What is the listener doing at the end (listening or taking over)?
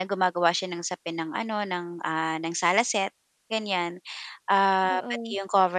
listening